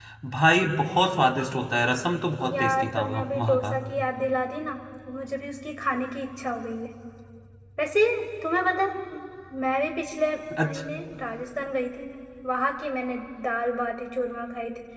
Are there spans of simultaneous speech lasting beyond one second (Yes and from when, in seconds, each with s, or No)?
Yes, from 2.5 s